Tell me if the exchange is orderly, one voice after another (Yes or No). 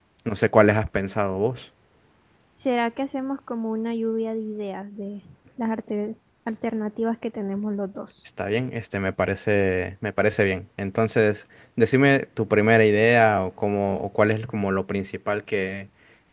Yes